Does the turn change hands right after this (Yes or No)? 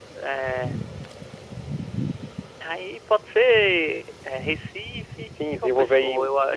Yes